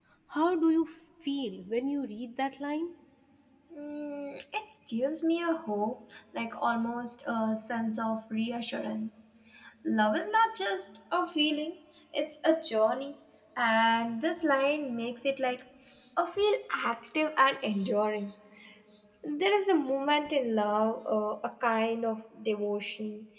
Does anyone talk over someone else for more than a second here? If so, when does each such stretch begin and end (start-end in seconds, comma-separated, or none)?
none